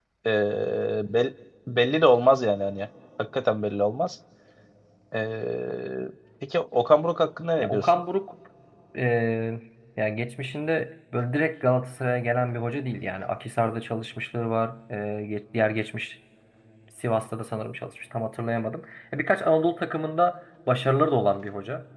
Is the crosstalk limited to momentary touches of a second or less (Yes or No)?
Yes